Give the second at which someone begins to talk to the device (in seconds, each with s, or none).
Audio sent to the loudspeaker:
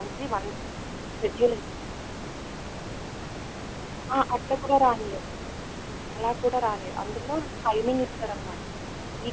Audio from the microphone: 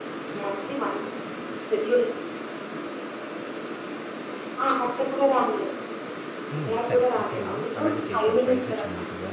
6.5 s